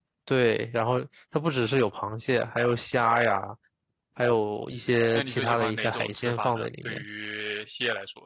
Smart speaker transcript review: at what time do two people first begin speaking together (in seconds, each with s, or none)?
5.1 s